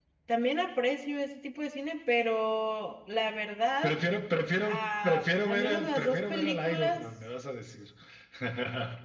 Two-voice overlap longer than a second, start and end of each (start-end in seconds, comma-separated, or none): 4.6-7.0